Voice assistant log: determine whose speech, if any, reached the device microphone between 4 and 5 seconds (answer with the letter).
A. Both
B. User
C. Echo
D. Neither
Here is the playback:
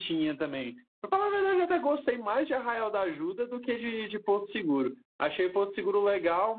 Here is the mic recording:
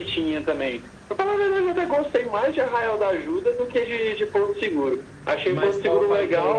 C